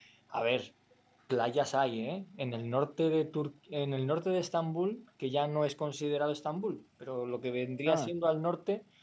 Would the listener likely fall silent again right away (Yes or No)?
Yes